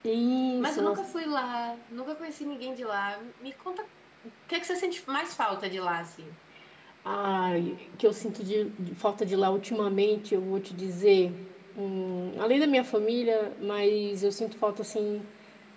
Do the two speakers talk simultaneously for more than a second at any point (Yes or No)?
No